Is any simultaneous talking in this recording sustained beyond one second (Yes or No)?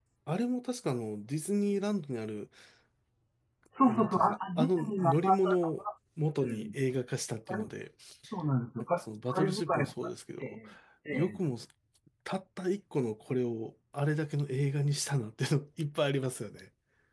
Yes